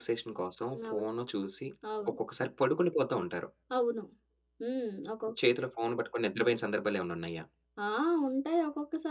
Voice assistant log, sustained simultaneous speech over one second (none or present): none